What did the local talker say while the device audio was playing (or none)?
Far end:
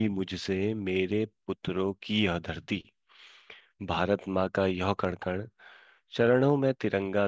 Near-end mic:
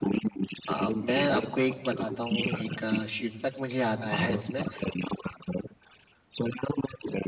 आ, मैं आपको एक बताता हूँ एक आ, शीर्षक मुझे याद आया है इसमें